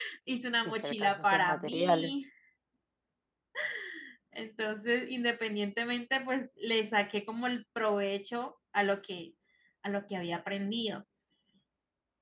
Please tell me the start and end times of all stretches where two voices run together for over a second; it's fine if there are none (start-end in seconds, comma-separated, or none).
0.7-2.1